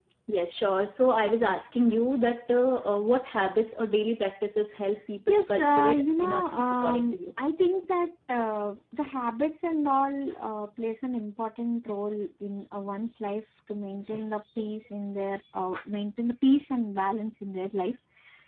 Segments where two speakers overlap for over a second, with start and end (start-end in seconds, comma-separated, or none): 5.3-7.2